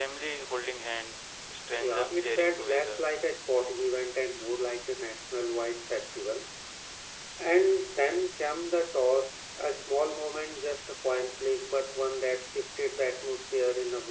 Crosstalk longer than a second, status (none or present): present